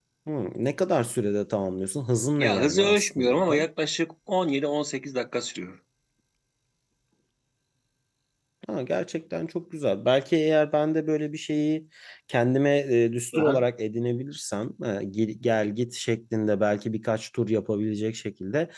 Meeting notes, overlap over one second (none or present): present